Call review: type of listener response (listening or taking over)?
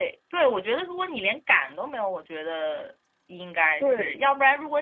listening